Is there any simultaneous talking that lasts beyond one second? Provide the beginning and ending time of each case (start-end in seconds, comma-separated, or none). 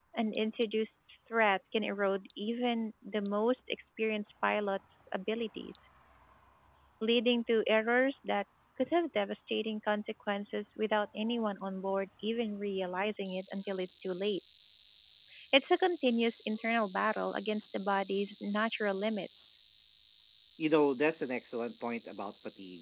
none